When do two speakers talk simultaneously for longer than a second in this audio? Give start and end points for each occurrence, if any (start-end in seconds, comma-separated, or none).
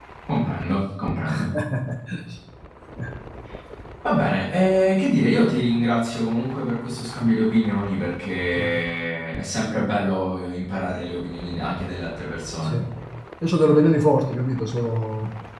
none